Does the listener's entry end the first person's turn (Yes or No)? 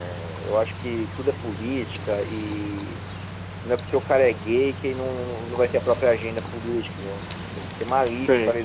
No